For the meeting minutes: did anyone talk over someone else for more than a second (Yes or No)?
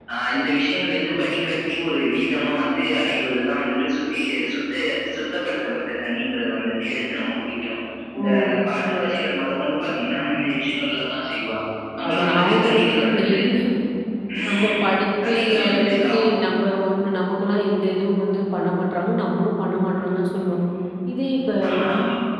Yes